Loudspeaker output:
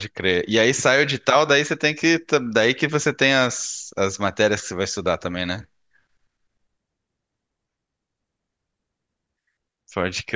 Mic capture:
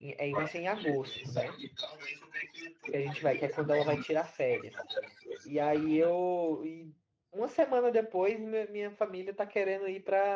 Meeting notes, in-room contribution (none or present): present